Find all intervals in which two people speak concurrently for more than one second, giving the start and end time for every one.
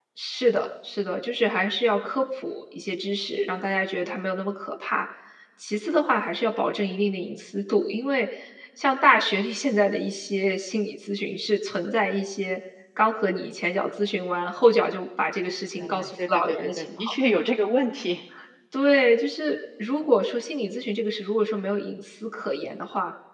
15.8-17.1

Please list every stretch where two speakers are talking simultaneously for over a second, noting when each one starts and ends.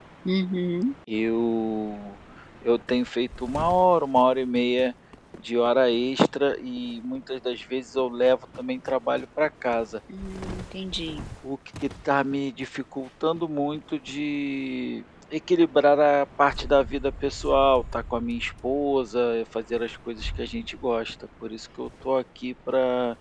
none

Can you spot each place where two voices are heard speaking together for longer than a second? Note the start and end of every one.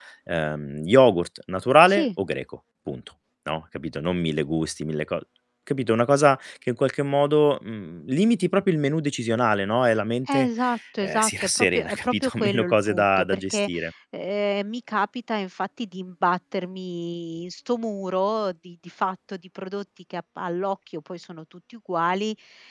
11.0-13.7

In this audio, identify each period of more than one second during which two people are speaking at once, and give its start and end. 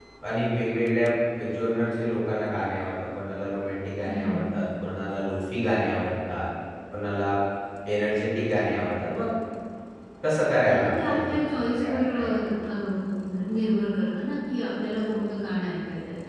10.7-12.4

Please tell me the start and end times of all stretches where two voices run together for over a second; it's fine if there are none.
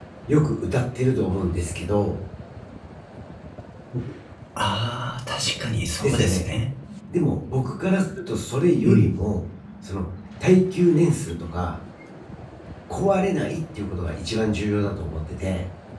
none

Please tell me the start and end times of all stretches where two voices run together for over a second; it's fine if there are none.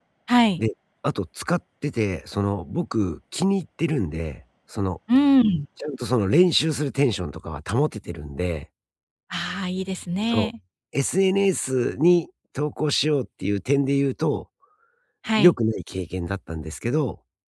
none

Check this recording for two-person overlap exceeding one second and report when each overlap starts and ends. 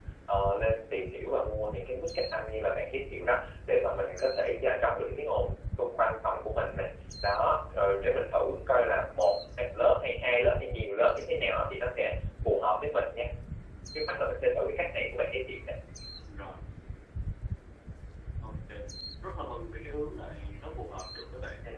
none

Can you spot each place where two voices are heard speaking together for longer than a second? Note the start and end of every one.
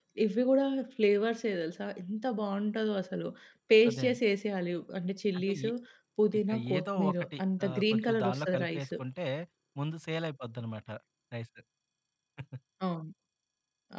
6.4-8.8

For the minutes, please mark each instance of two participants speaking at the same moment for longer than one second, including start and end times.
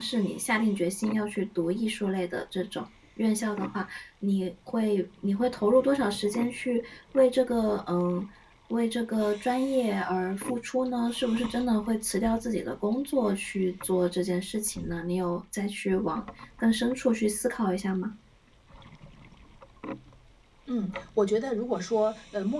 none

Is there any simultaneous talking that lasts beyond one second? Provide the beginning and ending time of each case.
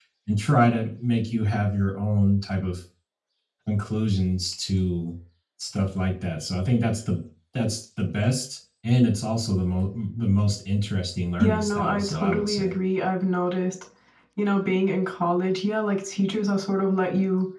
11.4-12.7

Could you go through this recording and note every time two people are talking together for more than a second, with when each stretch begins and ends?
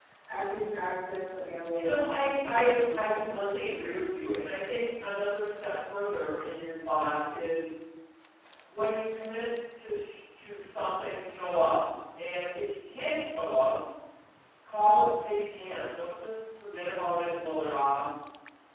1.7-4.0

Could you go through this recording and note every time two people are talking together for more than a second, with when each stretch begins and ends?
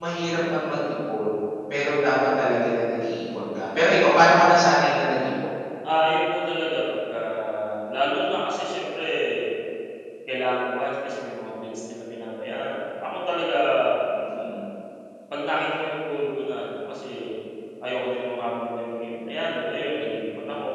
none

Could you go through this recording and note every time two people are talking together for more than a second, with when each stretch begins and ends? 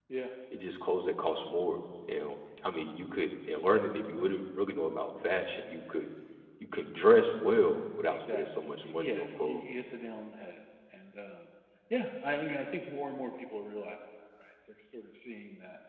8.1-9.7

